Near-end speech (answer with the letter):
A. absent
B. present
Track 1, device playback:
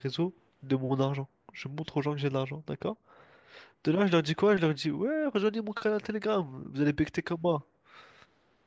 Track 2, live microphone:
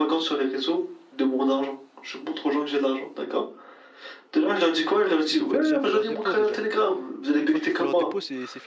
B